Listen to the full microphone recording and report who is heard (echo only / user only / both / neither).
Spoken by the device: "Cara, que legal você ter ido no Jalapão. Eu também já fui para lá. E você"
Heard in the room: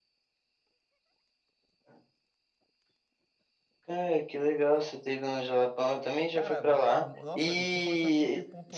both